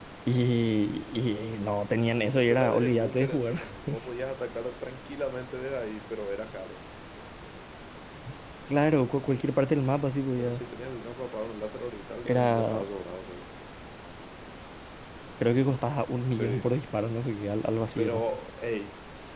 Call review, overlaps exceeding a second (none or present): present